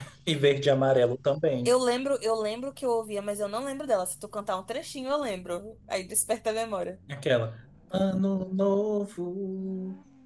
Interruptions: none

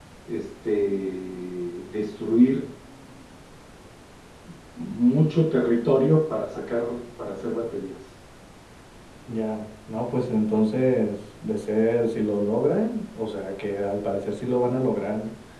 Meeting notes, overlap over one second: none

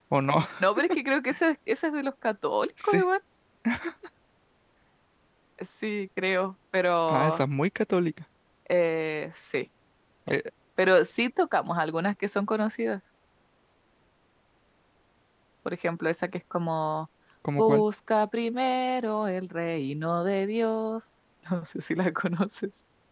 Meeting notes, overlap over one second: none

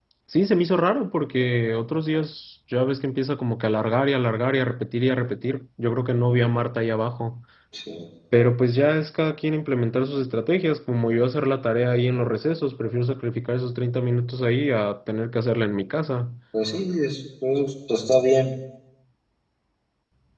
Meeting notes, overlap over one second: none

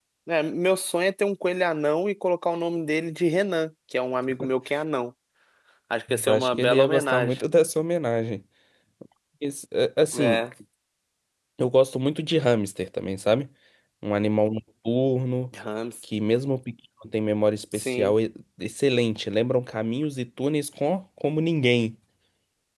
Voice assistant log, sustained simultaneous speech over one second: present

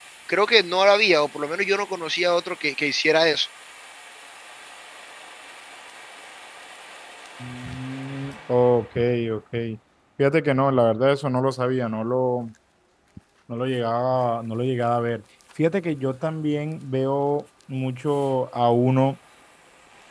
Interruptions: none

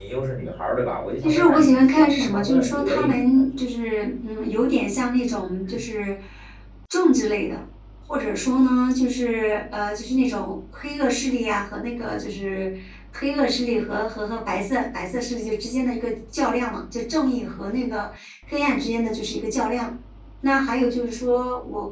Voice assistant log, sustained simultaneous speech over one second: present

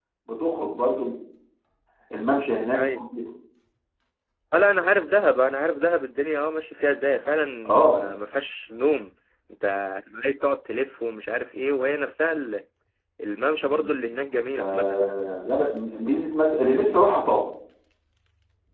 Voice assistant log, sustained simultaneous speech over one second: none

